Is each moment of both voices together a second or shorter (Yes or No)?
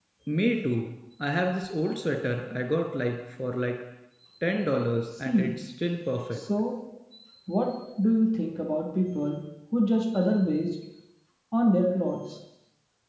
Yes